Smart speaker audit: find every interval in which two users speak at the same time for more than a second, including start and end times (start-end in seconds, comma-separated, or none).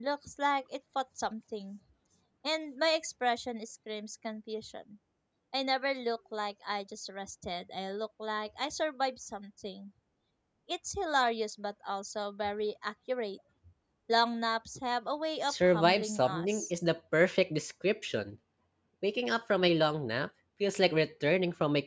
15.5-16.7